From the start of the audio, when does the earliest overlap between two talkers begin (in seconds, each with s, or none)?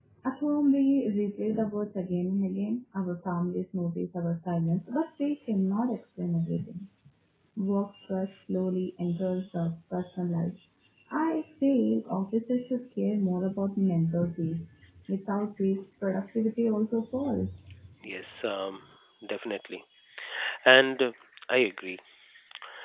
none